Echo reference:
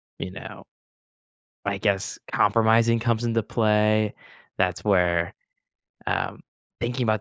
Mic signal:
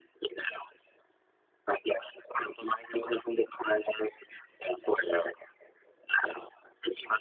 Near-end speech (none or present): none